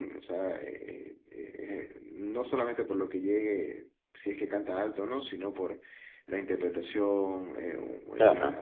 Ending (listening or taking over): listening